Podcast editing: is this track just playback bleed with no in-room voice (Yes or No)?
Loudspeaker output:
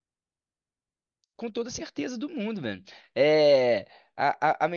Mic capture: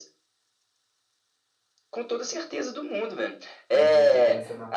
No